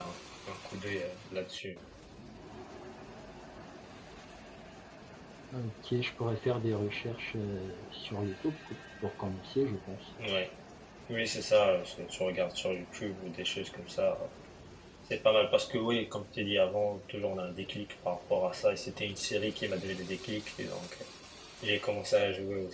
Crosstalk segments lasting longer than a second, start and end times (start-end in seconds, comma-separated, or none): none